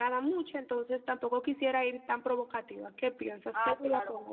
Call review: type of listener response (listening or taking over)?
taking over